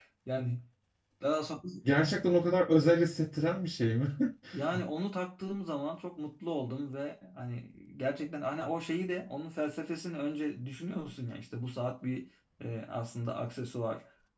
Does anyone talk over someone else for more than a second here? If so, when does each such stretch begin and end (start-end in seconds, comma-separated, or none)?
none